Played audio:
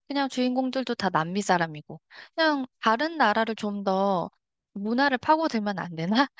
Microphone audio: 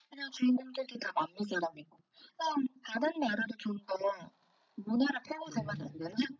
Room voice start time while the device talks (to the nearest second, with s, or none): 5 s